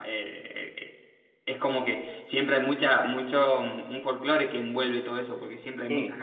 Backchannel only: Yes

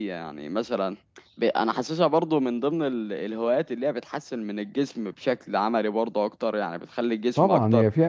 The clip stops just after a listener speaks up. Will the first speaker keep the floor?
No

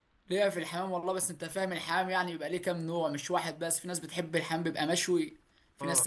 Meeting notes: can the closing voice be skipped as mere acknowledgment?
Yes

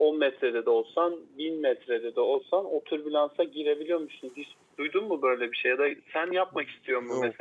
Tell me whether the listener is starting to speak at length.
No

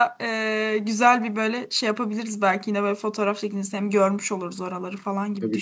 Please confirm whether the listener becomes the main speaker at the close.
Yes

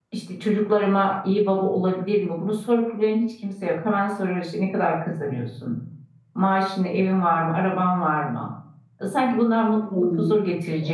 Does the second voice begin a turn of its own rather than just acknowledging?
Yes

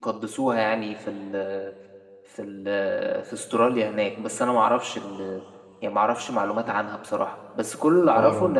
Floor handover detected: No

